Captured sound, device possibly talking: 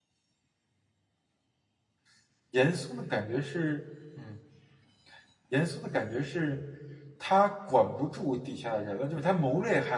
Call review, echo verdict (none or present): none